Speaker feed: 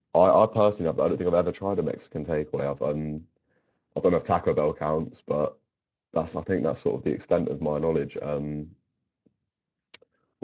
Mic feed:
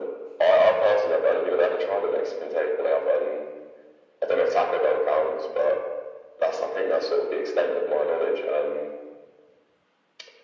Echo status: present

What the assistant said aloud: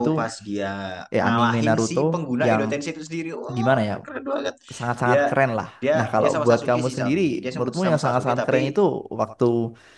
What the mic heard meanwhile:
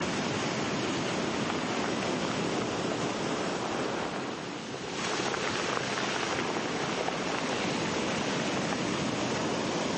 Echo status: none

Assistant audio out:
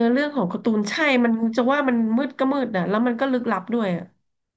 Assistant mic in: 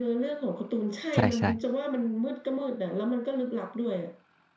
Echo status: present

